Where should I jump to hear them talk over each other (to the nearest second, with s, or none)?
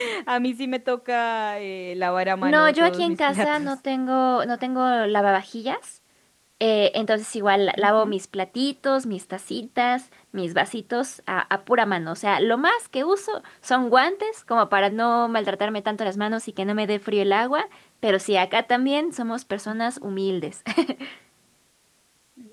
2 s